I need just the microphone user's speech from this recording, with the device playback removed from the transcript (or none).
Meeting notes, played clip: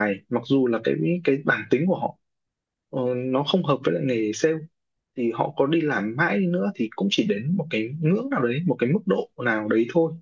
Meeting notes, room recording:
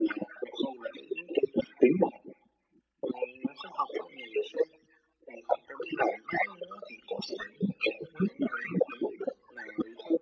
none